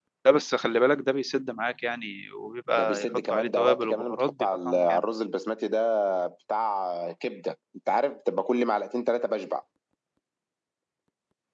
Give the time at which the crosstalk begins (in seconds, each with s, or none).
2.7 s